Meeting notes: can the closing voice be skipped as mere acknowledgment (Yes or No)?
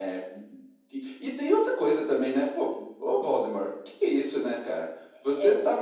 Yes